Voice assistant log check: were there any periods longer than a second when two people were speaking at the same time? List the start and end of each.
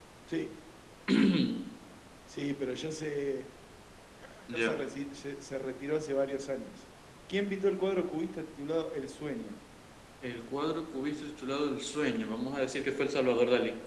none

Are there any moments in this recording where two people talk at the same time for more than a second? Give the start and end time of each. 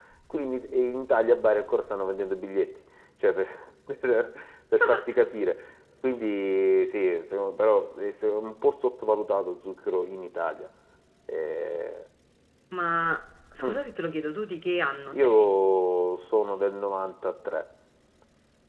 none

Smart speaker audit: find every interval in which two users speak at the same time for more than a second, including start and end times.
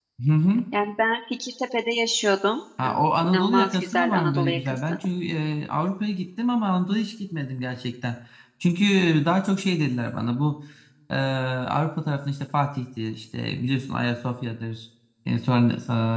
3.3-5.0

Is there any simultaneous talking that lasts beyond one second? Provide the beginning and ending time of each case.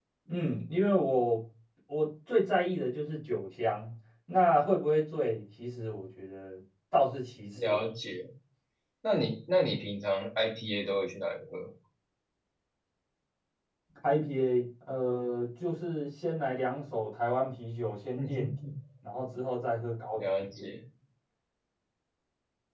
none

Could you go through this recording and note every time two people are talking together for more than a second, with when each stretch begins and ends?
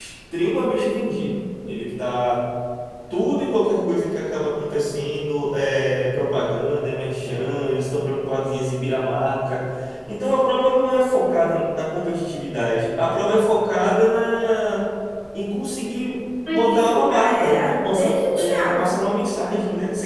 16.5-18.9

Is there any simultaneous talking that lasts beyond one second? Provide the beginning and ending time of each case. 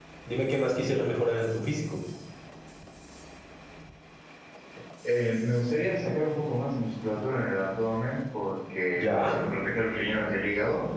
none

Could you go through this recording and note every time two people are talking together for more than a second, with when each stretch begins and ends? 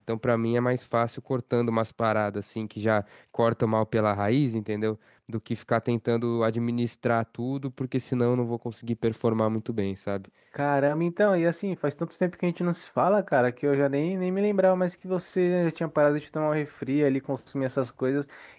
none

